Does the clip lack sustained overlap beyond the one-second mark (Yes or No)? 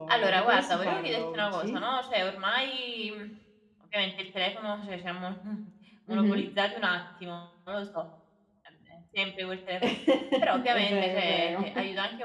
No